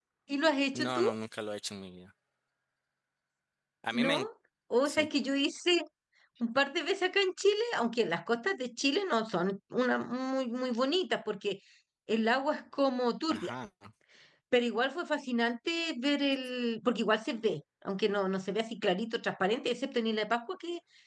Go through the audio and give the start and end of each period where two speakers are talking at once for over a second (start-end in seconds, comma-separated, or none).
none